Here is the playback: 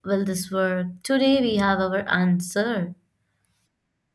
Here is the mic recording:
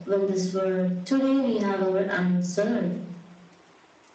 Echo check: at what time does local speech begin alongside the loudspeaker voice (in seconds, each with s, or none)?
none